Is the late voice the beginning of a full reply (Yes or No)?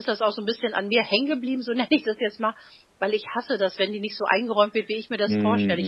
No